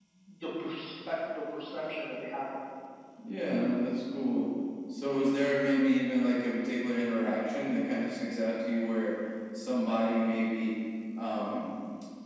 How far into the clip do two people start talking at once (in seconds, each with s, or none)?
none